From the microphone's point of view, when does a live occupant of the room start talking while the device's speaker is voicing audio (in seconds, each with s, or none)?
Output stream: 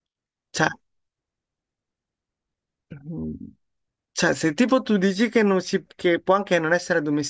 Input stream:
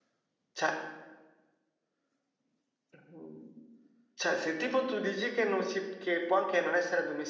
none